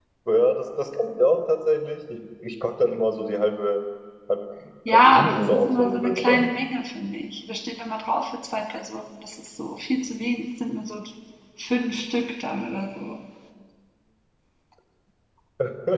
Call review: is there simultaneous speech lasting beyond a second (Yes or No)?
Yes